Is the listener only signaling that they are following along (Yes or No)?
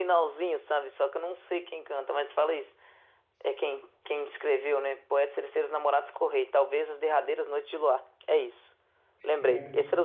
Yes